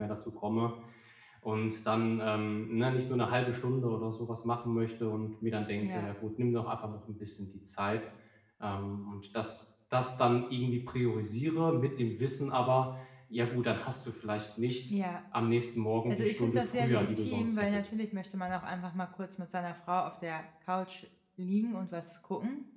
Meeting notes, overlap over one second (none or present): present